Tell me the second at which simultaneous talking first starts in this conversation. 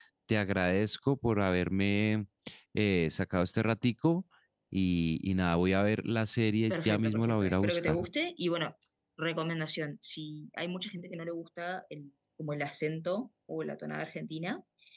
7 s

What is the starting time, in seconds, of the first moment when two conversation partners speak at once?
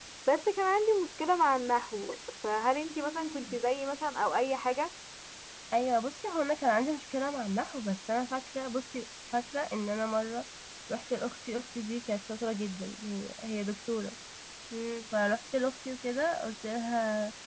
none

